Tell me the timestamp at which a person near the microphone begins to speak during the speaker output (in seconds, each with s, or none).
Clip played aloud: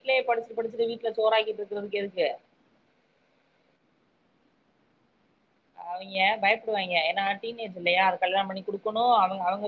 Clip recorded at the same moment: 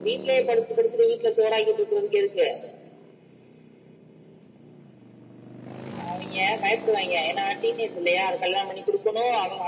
none